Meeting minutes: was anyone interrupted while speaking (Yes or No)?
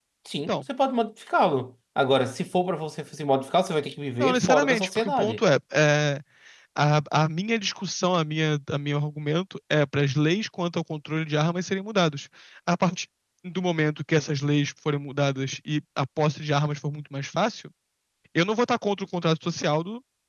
Yes